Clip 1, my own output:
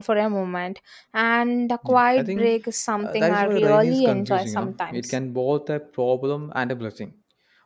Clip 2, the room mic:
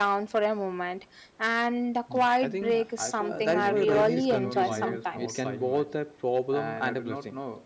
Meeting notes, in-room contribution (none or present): present